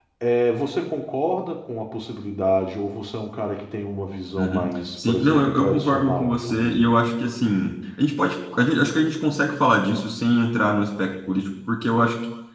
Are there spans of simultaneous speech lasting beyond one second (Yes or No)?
Yes